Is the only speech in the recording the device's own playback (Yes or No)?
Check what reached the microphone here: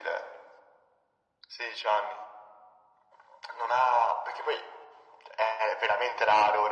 Yes